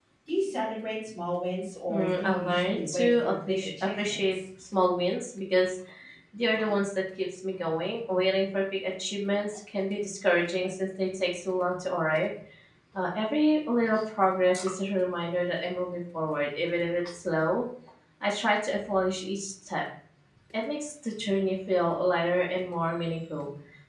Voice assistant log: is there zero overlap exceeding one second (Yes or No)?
No